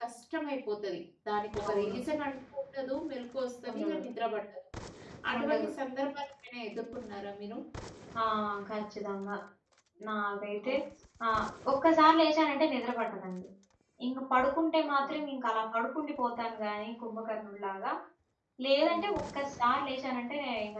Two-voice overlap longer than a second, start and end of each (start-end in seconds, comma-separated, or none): none